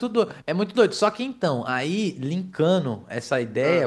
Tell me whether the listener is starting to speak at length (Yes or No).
No